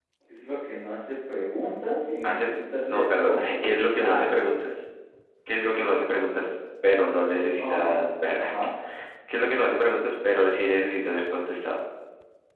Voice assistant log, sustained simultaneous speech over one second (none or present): present